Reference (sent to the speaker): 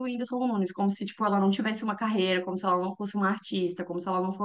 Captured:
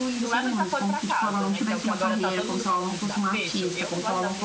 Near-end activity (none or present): present